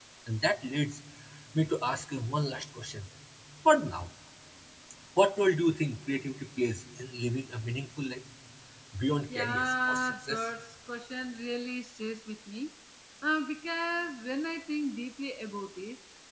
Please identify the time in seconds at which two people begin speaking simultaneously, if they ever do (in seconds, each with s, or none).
9.3 s